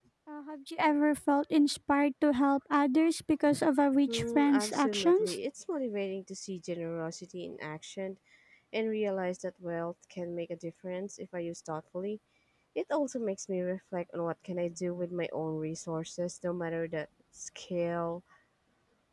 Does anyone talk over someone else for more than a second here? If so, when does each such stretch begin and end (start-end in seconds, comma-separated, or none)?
4.1-5.4